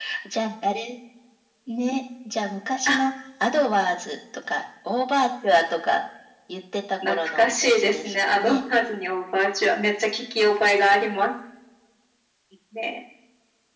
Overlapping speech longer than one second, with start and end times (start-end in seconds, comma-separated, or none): 7.0-8.6